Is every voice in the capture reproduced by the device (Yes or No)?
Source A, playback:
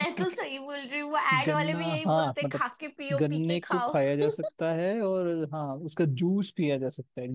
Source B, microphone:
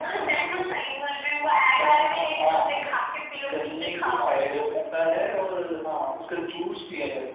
Yes